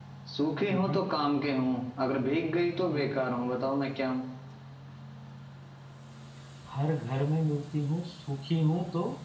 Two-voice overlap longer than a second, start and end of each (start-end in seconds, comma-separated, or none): none